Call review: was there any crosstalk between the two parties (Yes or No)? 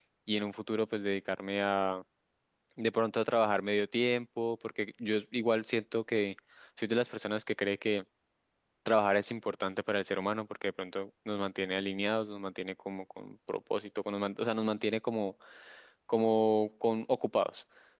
No